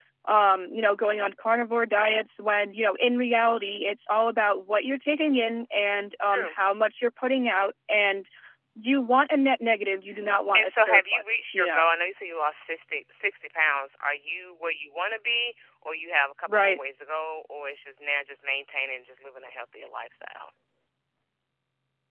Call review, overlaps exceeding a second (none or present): present